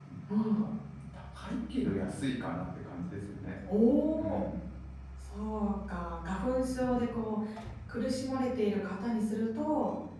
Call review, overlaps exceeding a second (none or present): none